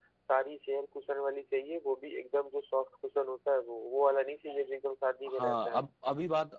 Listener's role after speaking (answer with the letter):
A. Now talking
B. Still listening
A